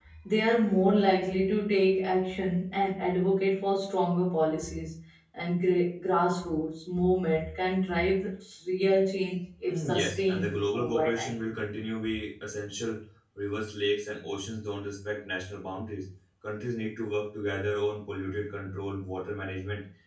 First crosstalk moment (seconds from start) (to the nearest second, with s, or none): 10 s